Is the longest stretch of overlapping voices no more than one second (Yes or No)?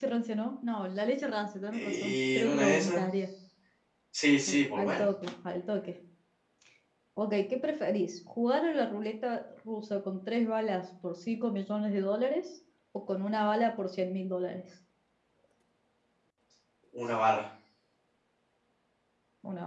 No